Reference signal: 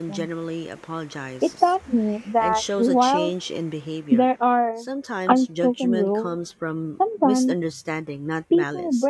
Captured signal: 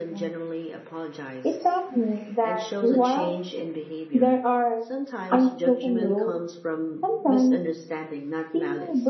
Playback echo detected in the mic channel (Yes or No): Yes